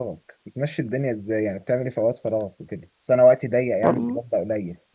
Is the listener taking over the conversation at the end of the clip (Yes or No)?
No